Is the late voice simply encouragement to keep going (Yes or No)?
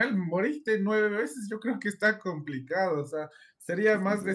Yes